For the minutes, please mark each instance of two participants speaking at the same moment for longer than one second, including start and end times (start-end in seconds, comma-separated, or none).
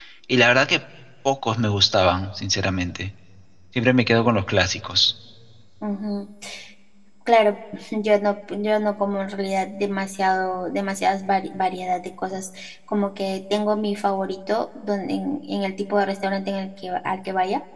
none